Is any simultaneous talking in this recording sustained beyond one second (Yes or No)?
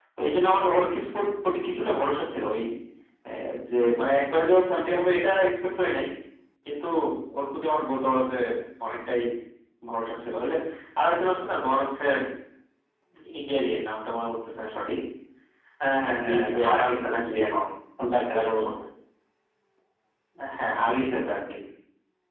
Yes